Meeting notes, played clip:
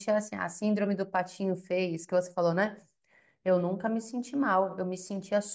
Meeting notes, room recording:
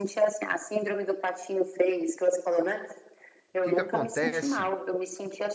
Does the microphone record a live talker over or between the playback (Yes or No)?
Yes